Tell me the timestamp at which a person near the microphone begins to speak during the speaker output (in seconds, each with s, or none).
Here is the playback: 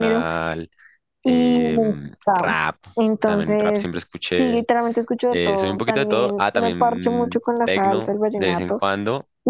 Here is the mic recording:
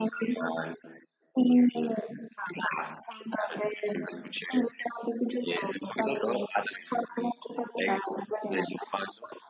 none